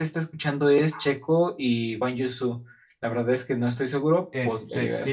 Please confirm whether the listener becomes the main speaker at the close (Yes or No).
Yes